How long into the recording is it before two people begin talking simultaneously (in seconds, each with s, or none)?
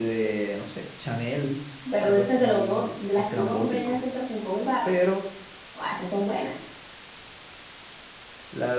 2.0 s